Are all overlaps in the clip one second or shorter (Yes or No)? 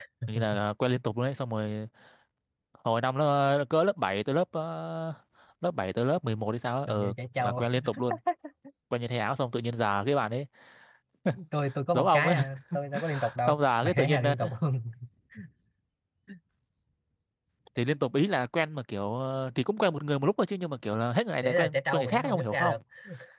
No